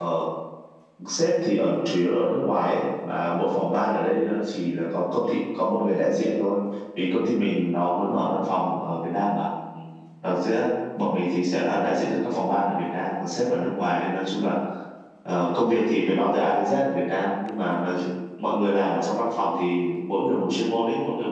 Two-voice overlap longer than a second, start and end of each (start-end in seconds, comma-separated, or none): none